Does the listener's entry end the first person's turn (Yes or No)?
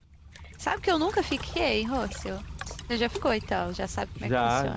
Yes